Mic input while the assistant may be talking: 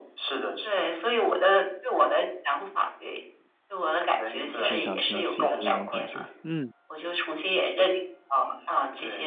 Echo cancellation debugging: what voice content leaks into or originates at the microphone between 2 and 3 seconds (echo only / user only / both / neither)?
echo only